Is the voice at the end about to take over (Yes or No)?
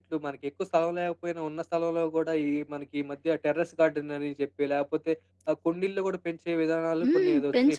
Yes